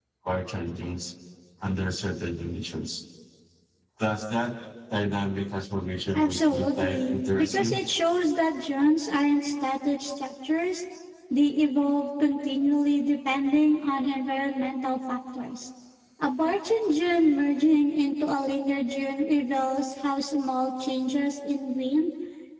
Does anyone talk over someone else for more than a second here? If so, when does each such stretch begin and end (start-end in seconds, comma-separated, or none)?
6.2-7.8